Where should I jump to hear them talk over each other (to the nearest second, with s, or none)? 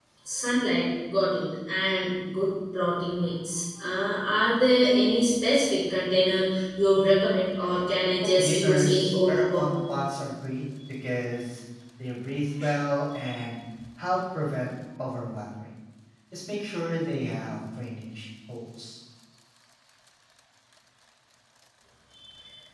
8 s